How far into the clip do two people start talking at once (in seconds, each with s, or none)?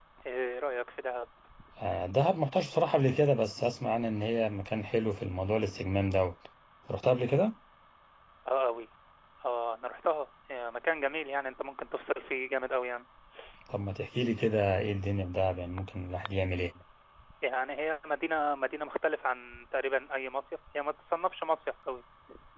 none